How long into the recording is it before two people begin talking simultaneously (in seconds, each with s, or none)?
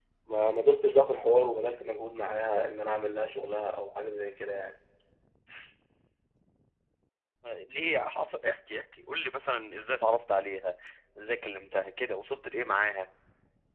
none